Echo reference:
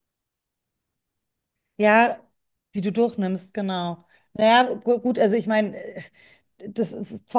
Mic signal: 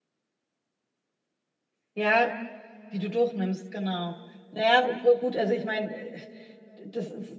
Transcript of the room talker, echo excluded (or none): none